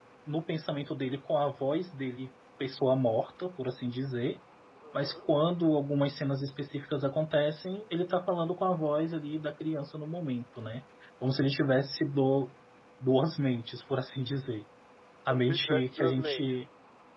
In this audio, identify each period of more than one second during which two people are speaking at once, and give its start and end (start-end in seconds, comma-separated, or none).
15.3-16.6